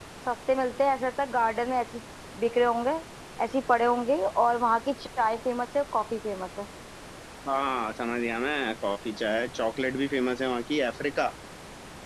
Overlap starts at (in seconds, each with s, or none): none